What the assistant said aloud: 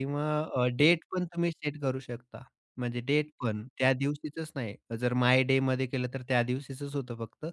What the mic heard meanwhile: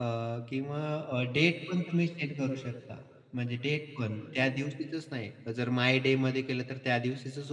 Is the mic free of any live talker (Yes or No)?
No